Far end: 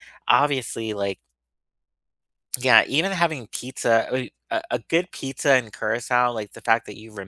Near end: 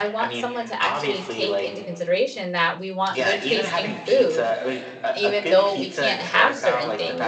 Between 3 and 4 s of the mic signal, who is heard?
both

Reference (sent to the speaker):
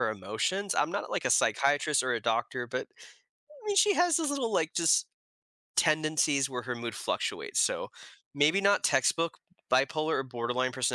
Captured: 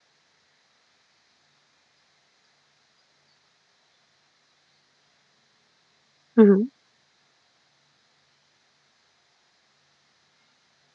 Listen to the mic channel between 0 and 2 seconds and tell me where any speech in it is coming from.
neither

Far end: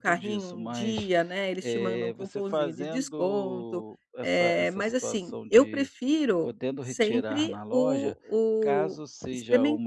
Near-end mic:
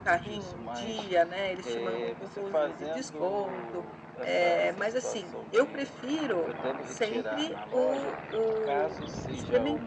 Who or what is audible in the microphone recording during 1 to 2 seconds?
echo only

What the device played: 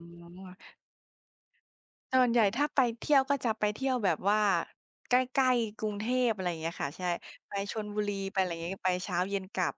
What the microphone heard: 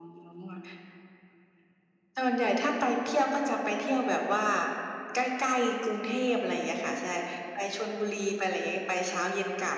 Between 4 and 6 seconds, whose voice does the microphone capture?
echo only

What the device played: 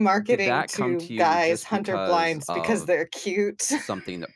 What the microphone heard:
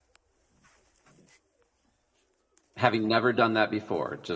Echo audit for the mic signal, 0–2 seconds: neither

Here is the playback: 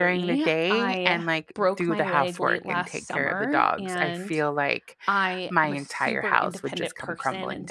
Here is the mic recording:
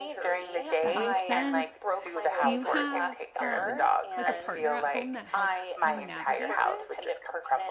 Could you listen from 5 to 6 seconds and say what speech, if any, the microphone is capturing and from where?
both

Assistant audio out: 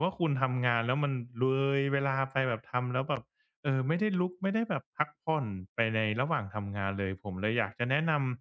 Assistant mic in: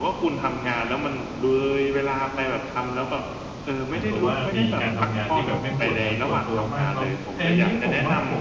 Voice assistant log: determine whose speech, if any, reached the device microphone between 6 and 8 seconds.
both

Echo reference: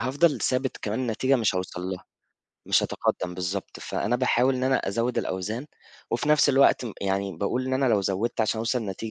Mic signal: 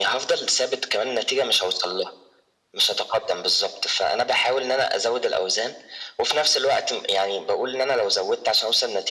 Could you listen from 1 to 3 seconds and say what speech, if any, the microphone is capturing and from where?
echo only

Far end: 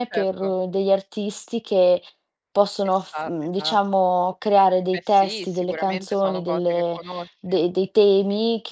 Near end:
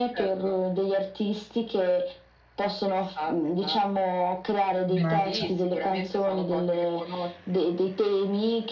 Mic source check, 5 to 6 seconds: both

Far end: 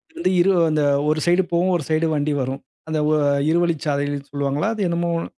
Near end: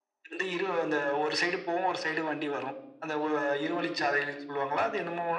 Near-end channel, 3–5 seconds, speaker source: echo only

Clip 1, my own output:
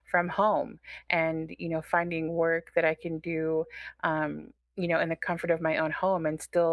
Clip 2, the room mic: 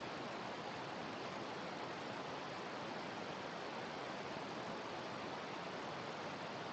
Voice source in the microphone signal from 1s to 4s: neither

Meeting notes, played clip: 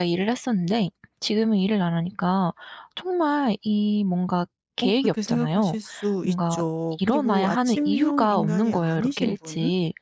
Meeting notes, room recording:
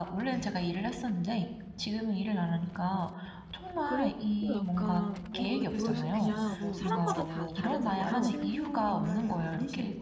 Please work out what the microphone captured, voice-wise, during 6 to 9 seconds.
both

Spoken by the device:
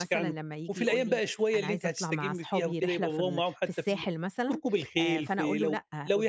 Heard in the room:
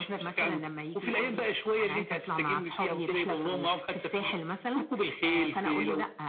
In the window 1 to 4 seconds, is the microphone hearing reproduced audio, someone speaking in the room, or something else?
echo only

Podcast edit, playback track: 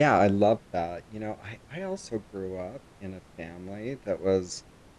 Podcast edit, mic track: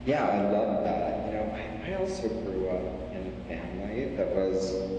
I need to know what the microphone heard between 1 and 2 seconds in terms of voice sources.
echo only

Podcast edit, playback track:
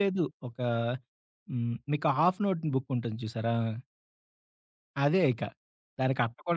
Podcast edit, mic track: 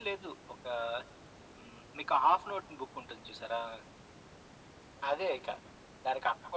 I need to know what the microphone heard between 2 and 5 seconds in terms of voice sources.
echo only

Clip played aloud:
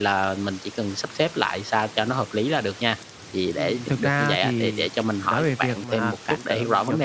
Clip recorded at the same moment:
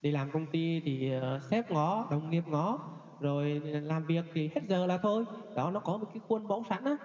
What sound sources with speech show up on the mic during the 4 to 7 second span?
user only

